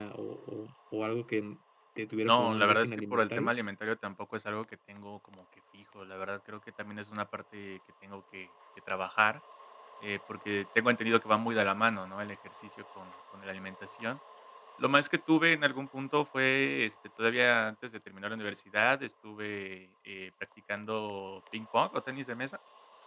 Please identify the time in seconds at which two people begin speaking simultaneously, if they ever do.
2.2 s

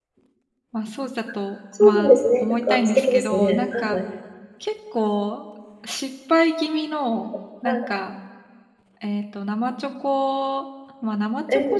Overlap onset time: 1.8 s

